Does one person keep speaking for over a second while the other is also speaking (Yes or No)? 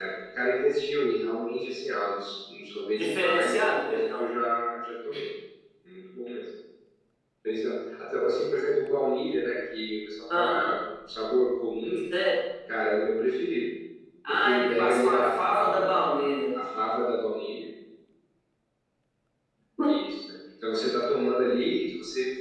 Yes